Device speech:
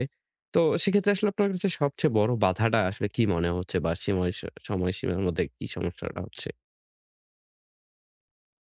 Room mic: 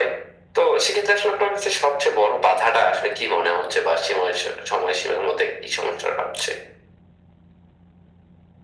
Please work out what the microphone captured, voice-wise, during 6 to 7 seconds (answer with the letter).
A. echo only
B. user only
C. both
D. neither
A